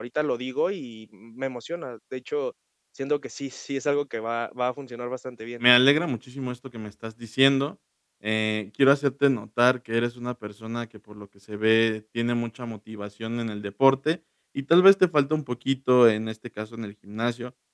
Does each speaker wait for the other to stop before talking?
Yes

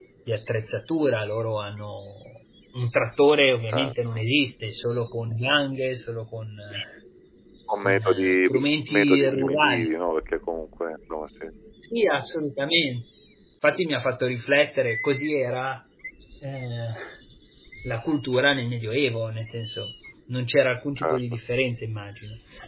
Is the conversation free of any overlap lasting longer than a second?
No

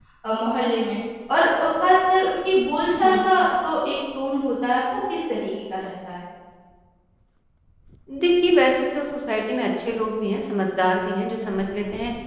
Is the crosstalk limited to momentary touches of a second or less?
Yes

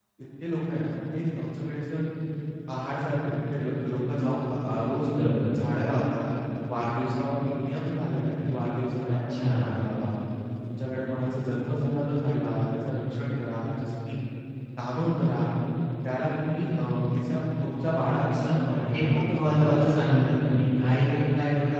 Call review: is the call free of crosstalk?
No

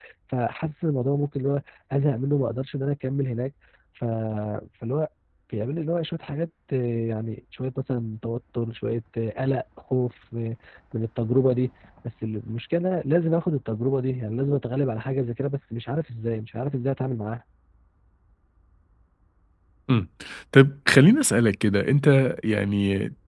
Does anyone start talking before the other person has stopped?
No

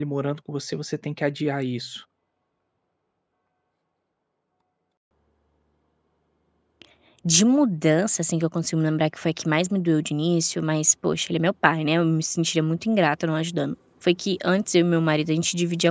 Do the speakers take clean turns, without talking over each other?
Yes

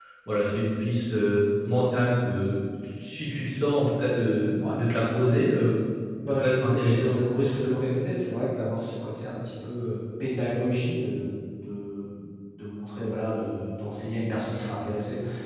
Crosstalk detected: Yes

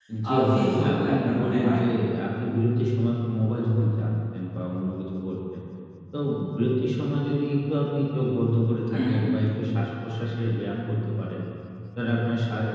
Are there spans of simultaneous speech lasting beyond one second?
Yes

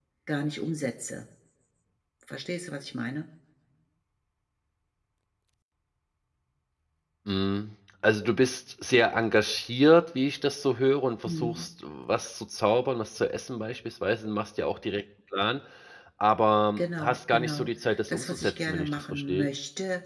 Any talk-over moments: Yes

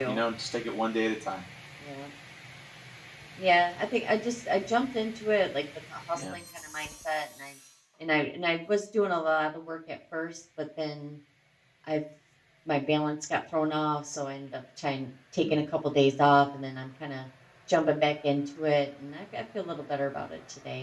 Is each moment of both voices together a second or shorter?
Yes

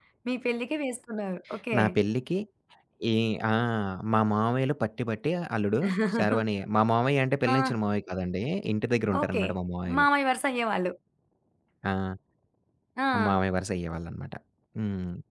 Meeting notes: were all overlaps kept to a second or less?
Yes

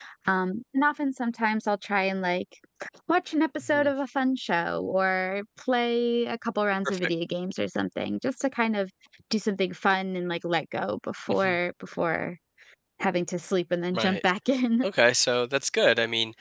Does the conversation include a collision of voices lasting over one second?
No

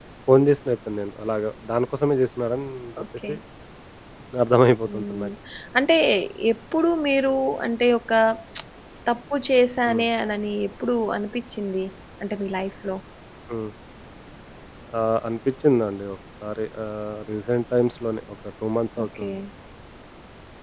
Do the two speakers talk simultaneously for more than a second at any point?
No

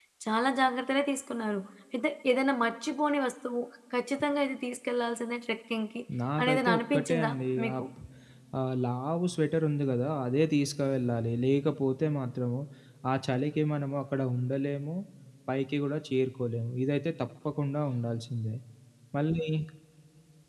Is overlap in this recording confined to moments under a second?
No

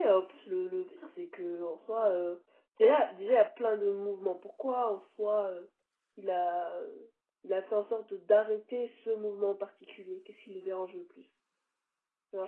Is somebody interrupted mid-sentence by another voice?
No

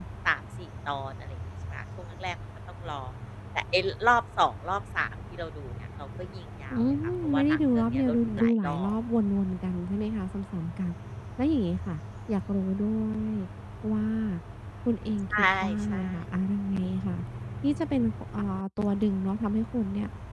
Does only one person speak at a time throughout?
No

